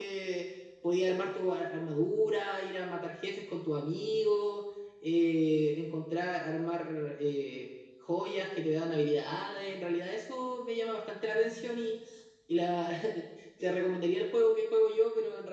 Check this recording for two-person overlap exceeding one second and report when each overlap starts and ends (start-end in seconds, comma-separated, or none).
none